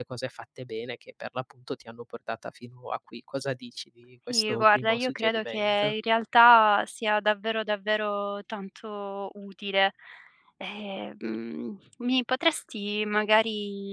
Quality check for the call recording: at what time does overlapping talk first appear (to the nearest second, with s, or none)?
4 s